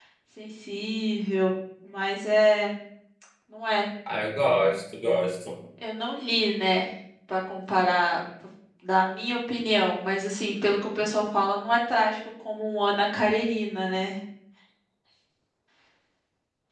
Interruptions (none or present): none